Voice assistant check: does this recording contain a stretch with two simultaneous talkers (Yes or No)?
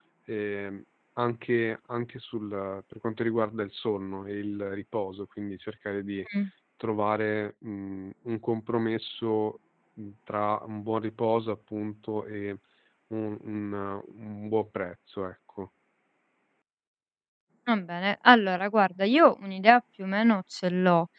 No